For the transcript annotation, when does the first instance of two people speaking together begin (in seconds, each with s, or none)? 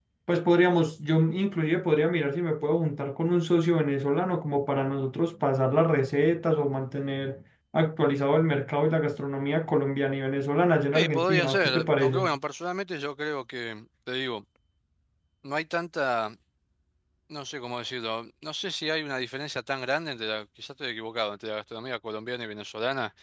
10.9 s